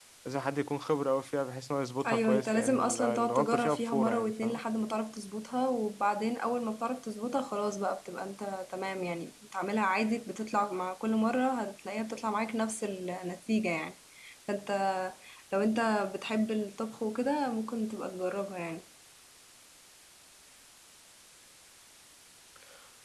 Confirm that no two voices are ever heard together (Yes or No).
No